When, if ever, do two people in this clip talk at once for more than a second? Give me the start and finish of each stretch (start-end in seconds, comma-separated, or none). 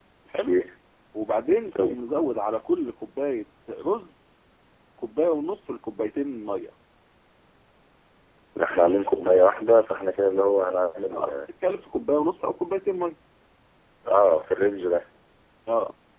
none